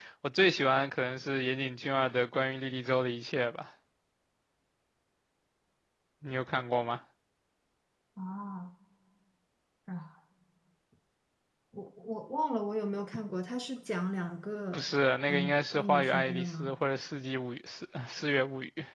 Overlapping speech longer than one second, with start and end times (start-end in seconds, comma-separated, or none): 15.3-16.7